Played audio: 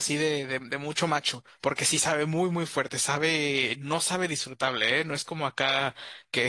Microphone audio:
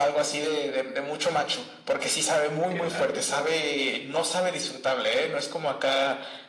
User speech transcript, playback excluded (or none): qué raro eso.